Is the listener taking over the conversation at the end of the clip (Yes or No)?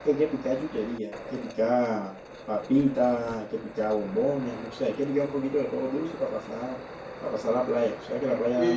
Yes